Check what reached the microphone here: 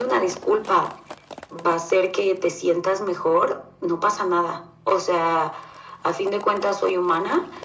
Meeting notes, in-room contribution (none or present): none